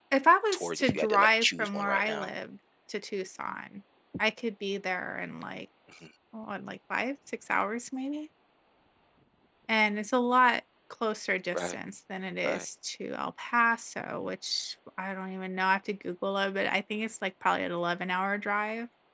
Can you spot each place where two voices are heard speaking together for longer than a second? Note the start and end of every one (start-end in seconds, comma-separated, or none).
0.5-2.3